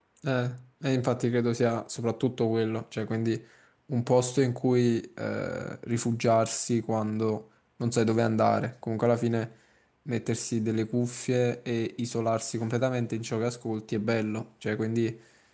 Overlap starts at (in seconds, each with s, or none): none